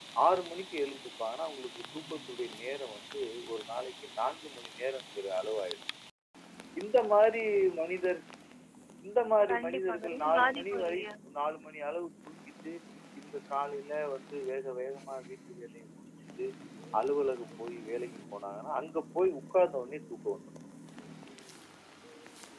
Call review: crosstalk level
present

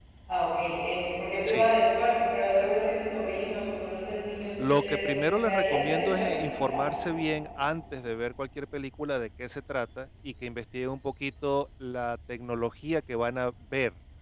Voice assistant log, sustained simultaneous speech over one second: present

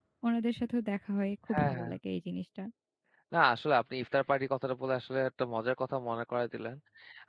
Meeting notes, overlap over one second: none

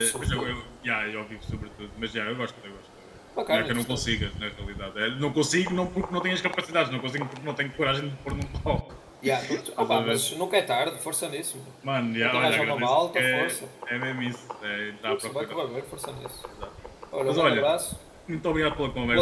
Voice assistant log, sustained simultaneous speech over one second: present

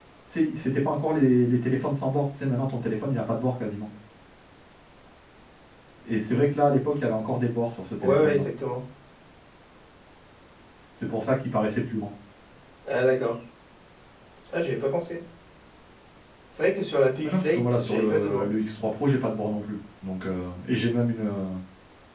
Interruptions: present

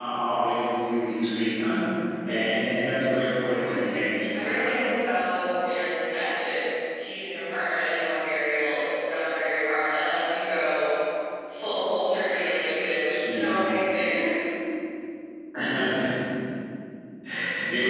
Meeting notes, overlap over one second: present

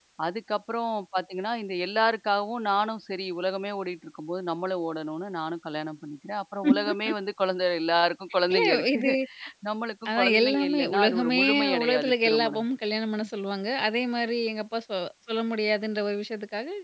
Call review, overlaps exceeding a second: present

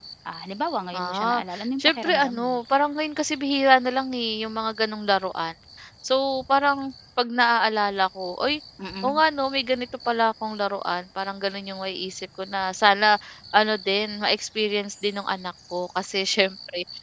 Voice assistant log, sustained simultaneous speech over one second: present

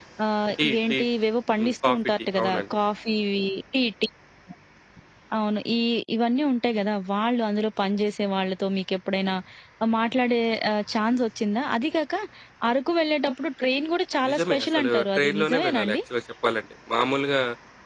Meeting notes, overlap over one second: present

